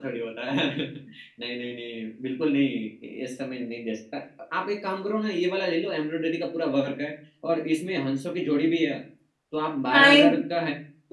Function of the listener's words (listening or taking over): listening